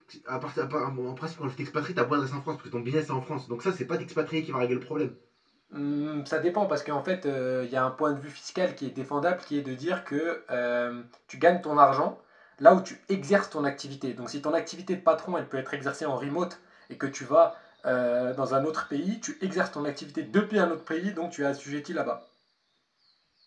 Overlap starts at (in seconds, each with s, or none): none